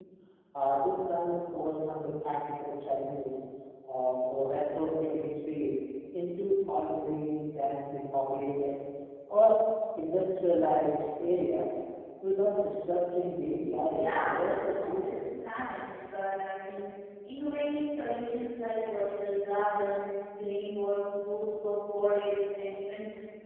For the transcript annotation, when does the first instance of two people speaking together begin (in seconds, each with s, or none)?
13.9 s